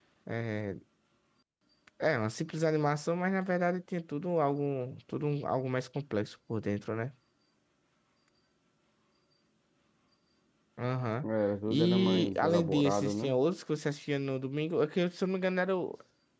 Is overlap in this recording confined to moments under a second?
No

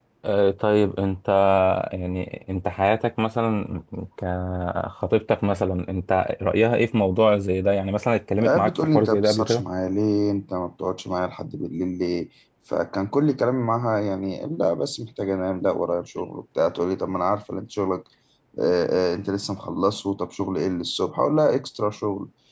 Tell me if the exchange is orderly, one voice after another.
No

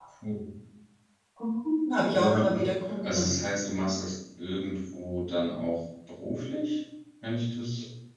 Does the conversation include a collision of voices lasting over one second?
Yes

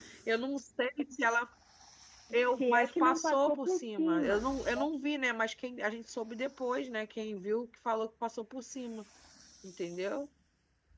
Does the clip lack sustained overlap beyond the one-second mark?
No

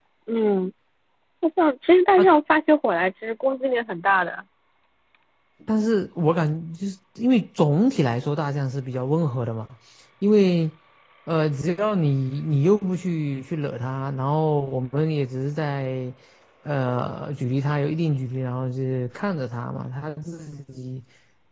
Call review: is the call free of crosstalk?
Yes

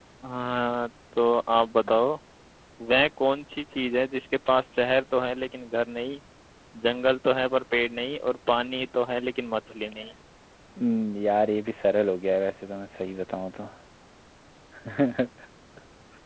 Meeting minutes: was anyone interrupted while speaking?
No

